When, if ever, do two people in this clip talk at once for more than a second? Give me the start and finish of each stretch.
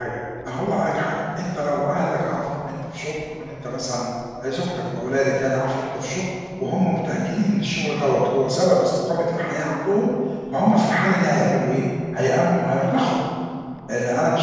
none

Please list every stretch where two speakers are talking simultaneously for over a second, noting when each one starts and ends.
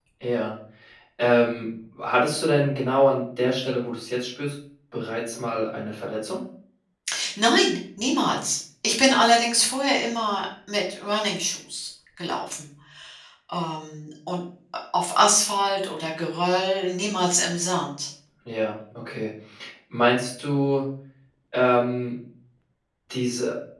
none

